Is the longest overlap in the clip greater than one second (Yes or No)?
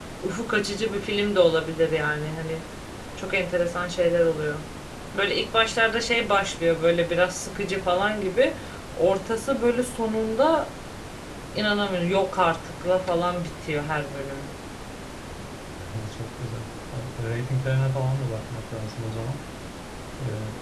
No